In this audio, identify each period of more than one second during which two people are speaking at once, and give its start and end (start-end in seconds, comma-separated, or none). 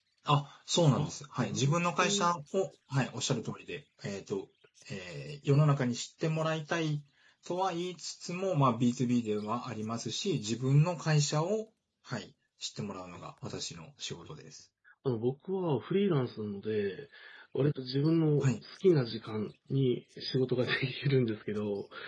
0.9-2.3